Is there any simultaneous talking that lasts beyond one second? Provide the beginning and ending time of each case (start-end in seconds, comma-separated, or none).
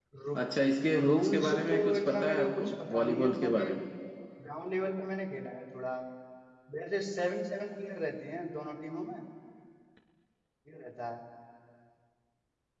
1.1-3.7